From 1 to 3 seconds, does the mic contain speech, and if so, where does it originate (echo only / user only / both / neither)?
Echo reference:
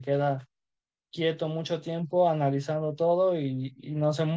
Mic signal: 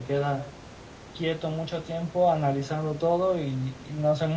echo only